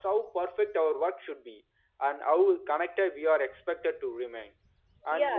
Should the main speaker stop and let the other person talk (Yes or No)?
Yes